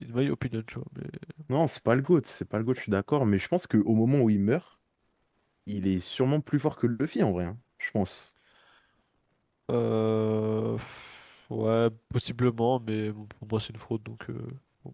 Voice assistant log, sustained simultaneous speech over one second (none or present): none